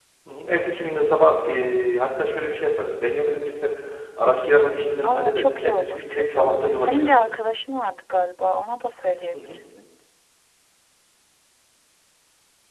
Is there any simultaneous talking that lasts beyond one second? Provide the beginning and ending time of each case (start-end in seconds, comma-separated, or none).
5.0-7.2